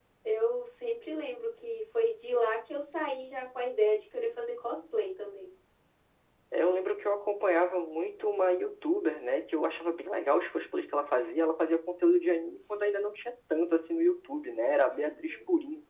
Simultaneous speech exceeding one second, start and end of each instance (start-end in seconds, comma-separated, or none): none